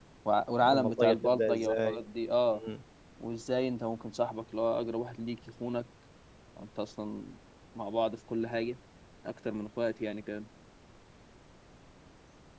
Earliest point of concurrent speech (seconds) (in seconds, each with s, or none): 0.6 s